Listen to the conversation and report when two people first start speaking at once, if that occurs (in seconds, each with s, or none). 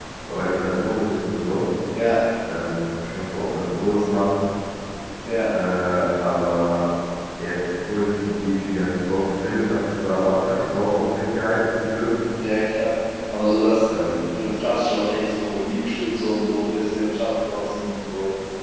none